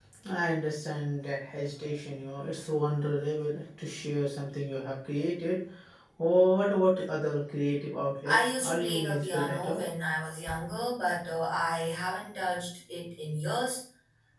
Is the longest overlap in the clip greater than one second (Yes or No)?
Yes